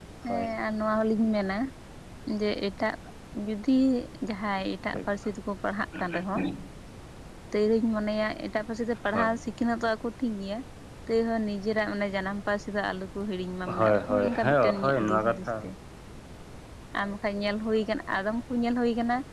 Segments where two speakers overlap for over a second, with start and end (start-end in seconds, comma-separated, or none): 13.7-15.5